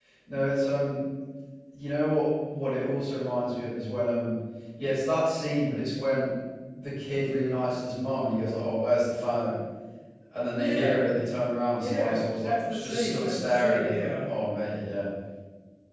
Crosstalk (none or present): present